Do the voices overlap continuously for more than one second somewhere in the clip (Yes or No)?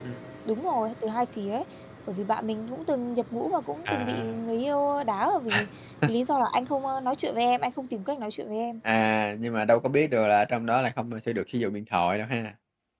No